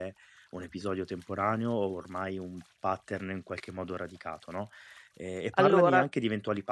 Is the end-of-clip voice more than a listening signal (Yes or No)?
No